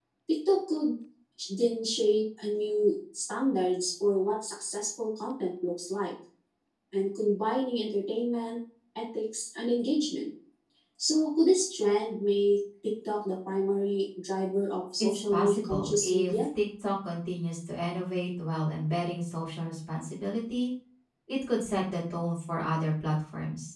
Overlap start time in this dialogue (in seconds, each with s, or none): 15.0 s